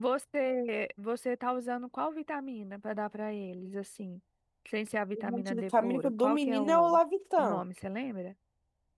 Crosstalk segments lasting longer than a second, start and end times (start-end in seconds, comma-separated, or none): 5.1-7.0